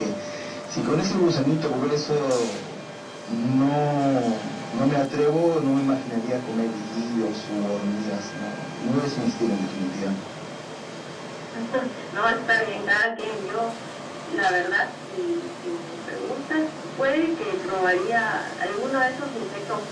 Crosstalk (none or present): none